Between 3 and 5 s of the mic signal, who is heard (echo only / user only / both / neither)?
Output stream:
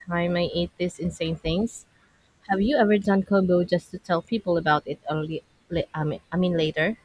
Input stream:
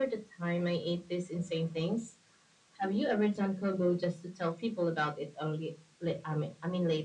echo only